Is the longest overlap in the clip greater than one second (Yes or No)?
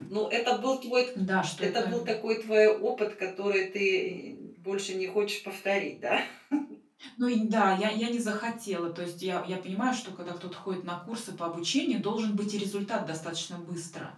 No